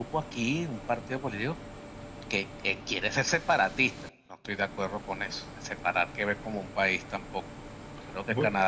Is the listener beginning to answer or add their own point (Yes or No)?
No